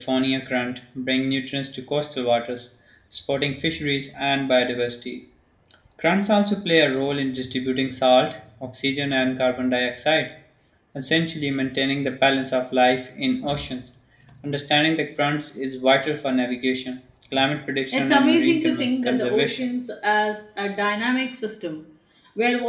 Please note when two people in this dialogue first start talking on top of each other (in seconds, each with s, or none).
17.9 s